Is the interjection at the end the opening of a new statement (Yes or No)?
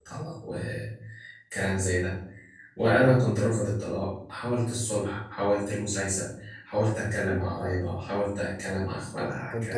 Yes